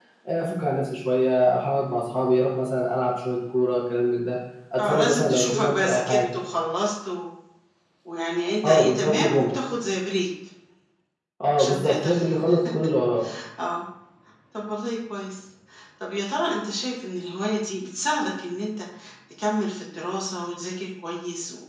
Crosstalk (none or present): present